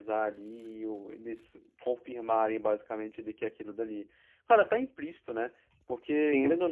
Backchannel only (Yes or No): Yes